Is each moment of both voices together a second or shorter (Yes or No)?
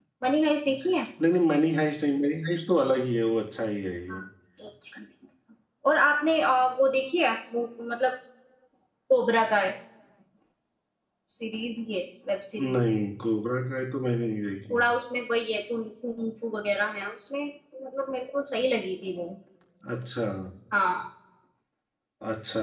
Yes